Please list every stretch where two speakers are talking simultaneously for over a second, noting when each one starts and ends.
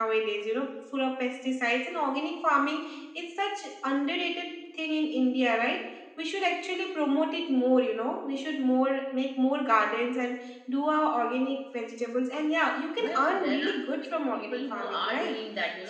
13.0-15.4

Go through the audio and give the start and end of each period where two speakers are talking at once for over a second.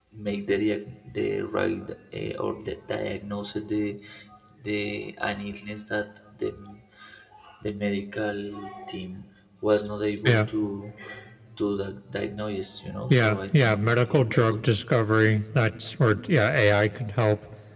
13.1-14.7

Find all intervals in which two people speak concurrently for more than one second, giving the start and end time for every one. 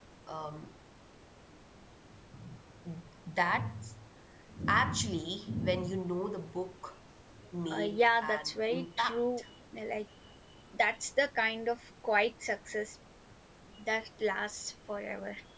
7.7-9.4

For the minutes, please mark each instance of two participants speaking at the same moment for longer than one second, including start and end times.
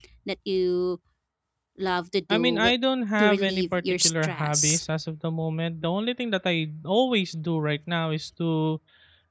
3.2-4.8

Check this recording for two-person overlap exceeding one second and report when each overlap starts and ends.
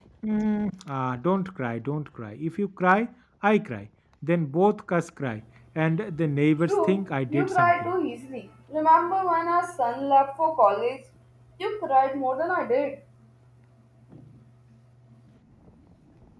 6.7-7.9

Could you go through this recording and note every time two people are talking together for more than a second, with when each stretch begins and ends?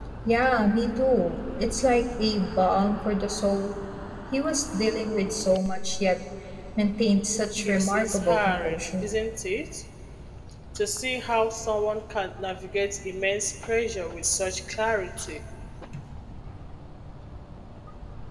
7.6-9.1

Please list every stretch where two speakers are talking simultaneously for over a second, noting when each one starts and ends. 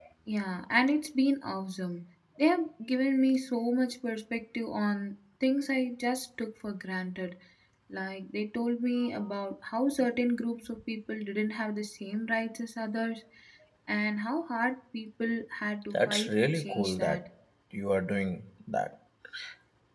15.9-17.2

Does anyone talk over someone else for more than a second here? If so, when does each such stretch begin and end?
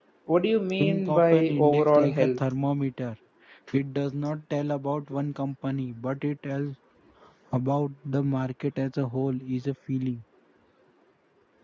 0.8-2.4

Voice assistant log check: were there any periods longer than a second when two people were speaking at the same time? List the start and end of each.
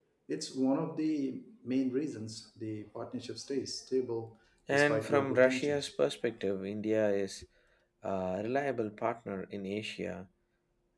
4.7-5.9

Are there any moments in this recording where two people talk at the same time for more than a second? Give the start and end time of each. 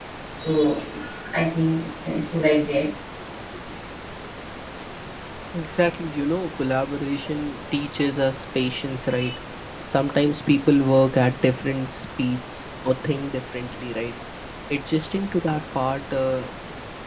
none

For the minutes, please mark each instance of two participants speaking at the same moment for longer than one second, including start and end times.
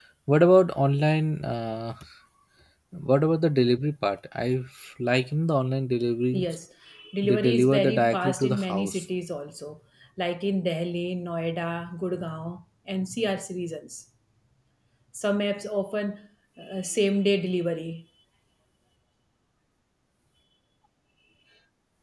7.2-9.0

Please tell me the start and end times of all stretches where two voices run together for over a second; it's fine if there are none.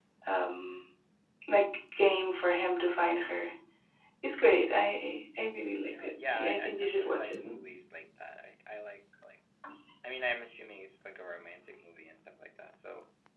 5.9-7.3

